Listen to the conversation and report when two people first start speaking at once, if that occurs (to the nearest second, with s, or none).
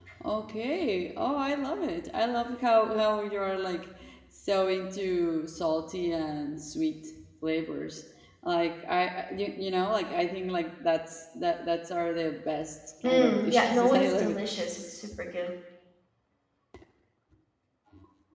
13 s